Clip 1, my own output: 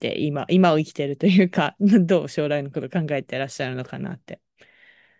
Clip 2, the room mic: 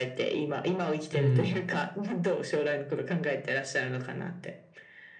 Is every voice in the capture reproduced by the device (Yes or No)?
No